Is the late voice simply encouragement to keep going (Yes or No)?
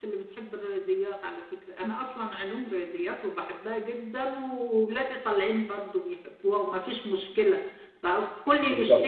Yes